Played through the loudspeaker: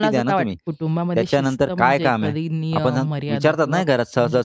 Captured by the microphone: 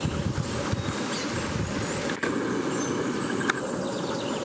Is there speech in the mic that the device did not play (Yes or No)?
No